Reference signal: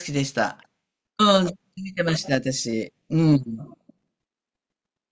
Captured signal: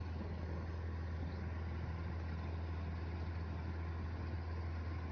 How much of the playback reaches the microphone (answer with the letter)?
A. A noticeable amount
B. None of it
B